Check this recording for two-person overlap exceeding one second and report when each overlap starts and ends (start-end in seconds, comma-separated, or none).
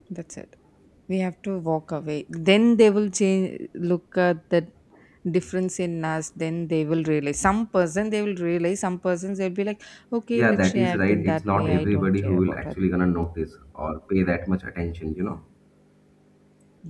10.4-12.8